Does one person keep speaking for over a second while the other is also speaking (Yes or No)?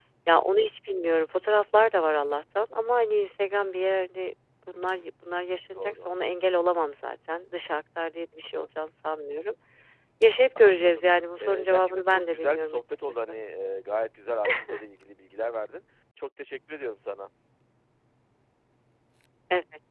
Yes